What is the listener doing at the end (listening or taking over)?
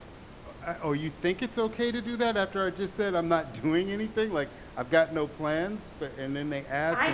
taking over